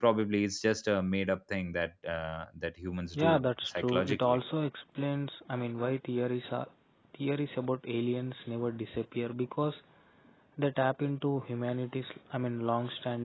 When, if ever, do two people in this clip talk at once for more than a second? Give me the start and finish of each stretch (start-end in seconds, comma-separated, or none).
3.1-4.4